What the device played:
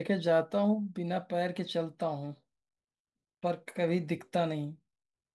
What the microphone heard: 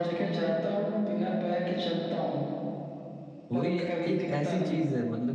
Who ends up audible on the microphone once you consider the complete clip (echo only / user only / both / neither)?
both